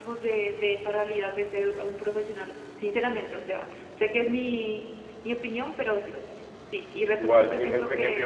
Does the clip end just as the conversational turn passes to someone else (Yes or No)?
Yes